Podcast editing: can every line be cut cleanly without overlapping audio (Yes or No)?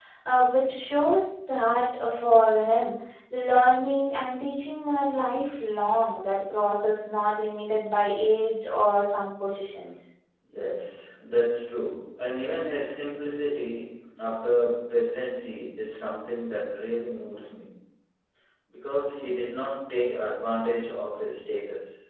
Yes